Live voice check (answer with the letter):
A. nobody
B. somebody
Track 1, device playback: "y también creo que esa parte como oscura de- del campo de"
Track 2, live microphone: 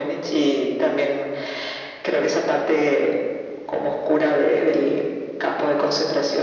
A